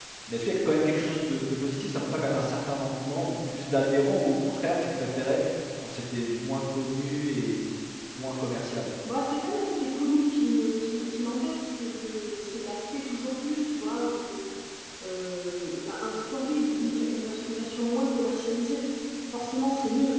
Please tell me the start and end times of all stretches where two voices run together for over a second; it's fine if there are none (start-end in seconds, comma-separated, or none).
none